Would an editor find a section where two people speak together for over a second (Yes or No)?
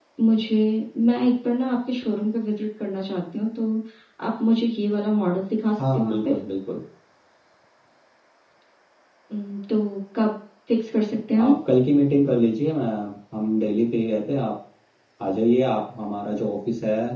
No